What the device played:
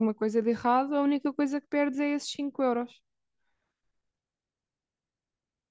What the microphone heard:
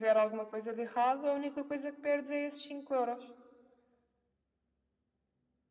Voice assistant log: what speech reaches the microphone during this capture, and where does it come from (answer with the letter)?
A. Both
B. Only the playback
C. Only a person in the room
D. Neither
B